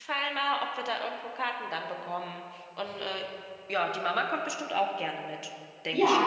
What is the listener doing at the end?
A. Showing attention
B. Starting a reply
B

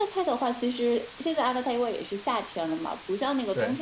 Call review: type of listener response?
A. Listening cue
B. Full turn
A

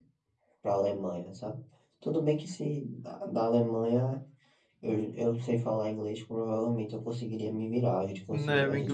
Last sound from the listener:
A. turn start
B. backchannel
A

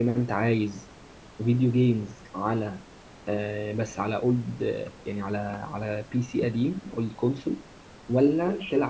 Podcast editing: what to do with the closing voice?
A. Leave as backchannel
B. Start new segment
A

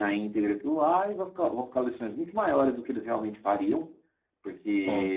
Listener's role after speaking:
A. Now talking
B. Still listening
B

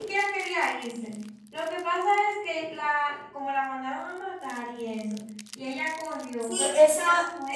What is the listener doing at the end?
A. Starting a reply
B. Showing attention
A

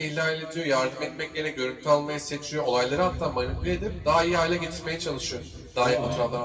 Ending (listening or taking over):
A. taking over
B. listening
B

